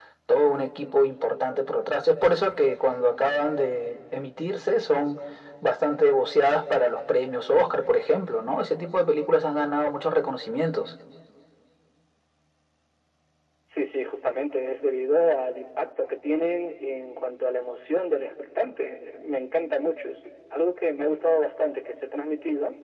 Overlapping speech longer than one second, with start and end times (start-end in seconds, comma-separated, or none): none